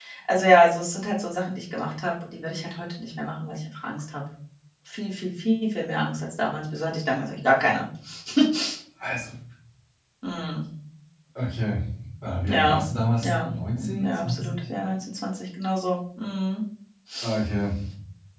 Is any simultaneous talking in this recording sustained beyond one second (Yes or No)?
Yes